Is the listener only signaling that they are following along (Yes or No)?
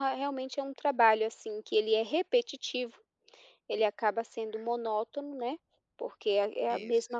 Yes